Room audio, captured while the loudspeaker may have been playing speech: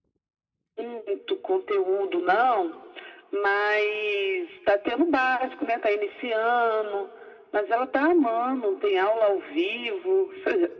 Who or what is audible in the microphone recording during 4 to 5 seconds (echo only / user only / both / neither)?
echo only